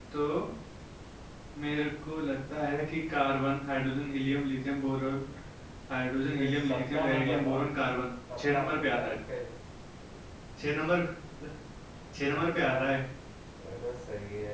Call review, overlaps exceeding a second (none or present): present